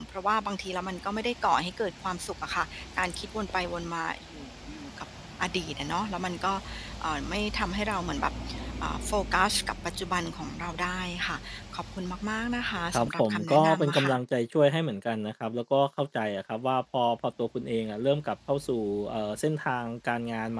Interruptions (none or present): present